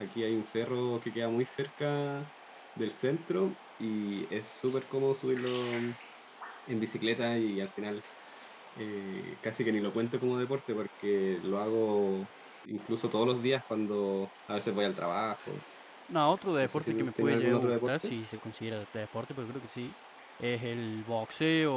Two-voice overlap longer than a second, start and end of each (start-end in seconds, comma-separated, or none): 16.6-18.1